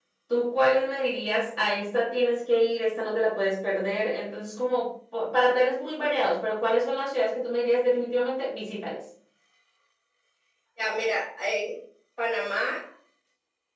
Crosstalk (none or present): none